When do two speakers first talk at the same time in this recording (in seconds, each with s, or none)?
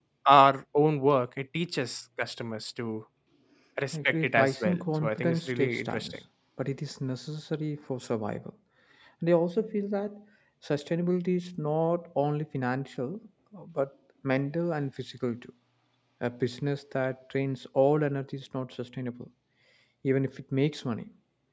3.9 s